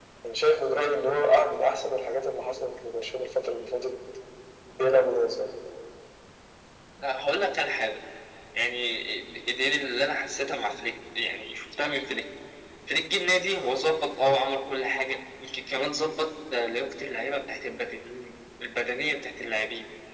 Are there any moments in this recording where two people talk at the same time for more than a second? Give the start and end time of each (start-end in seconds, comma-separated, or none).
none